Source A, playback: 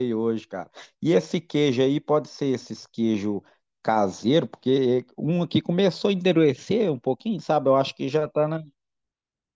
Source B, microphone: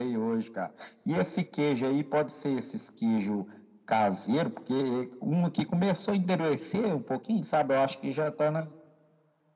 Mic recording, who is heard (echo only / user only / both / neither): echo only